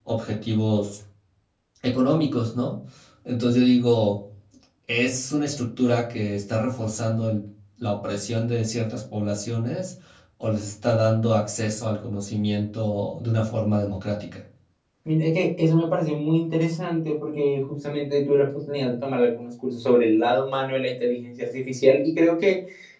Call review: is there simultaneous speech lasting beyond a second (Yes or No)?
No